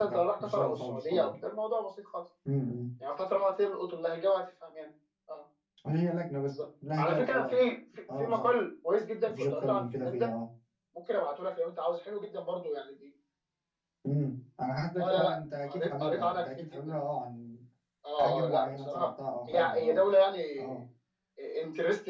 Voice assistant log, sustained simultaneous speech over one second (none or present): present